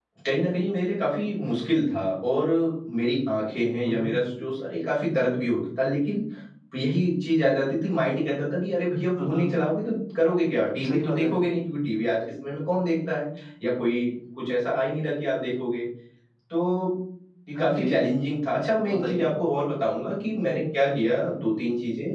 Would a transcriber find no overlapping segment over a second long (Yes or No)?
Yes